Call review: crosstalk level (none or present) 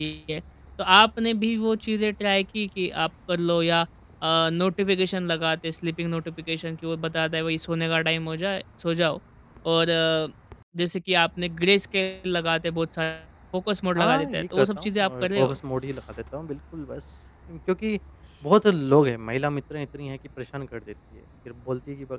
present